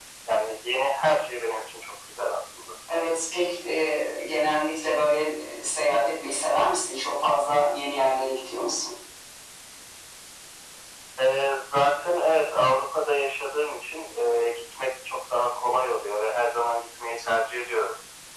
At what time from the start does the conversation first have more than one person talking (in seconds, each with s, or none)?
none